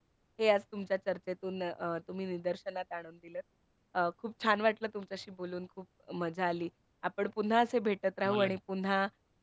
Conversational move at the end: listening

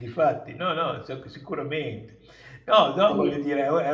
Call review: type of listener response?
listening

